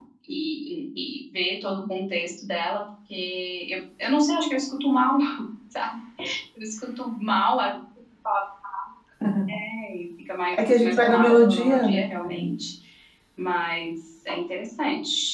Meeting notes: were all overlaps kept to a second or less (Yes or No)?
No